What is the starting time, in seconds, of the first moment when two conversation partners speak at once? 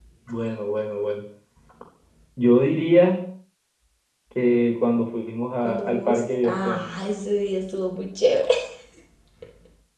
5.6 s

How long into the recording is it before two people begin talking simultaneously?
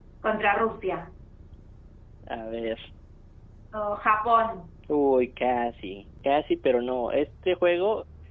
none

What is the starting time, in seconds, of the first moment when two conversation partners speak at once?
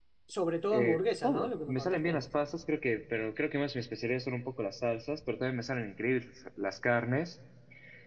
0.7 s

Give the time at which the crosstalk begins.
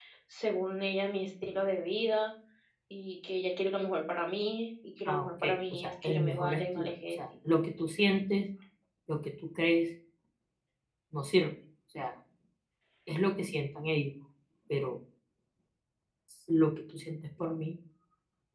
5.1 s

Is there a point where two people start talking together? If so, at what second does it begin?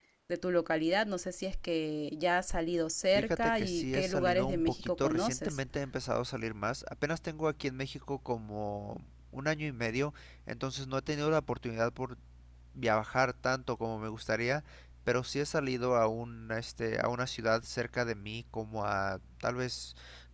3.1 s

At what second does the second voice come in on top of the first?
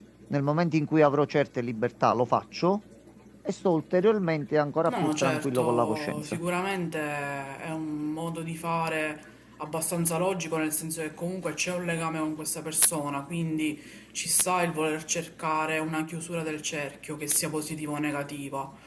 4.8 s

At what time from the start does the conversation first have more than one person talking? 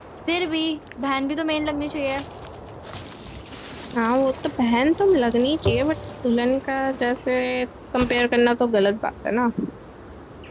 none

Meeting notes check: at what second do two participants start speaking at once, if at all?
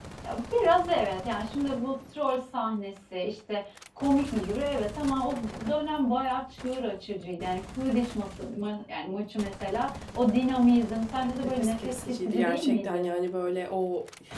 11.4 s

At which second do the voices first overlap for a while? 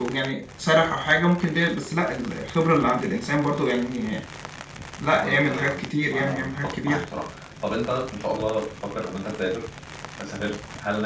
5.2 s

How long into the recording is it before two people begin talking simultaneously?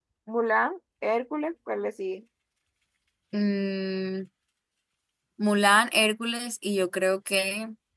none

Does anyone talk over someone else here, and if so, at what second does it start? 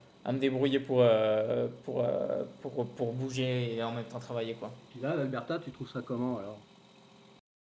none

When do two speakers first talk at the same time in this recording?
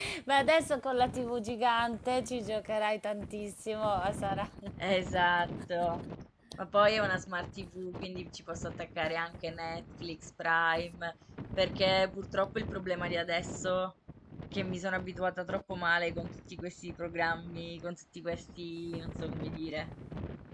none

